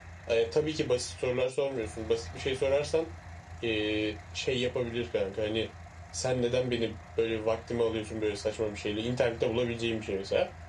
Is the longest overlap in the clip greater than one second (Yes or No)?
No